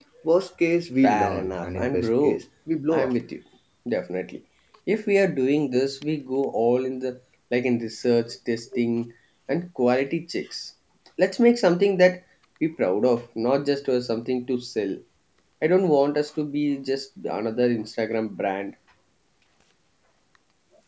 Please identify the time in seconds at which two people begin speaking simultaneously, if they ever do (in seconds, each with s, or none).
1.0 s